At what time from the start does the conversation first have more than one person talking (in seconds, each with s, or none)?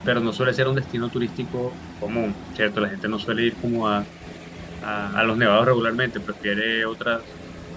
none